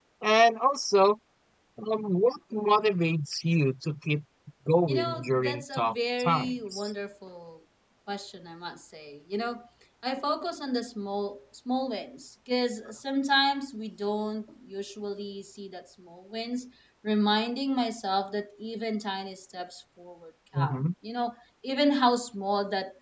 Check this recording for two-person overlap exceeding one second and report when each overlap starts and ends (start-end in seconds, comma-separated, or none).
4.9-6.9